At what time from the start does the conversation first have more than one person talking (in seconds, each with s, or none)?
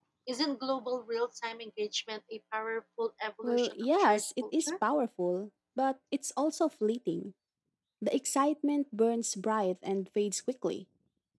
3.4 s